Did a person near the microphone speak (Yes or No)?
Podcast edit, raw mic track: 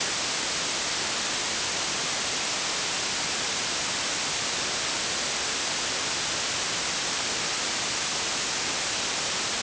No